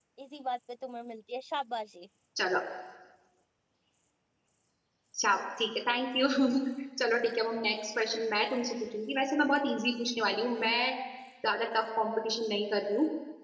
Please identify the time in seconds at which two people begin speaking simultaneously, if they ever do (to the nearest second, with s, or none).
none